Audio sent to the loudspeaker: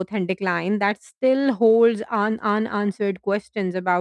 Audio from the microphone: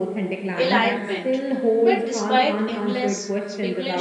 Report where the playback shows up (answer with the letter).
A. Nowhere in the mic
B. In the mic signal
B